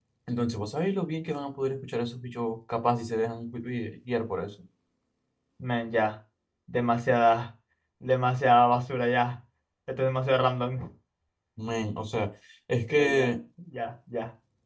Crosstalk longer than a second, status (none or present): none